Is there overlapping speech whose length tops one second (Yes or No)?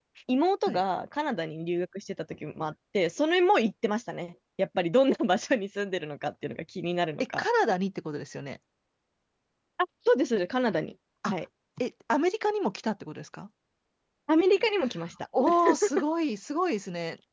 No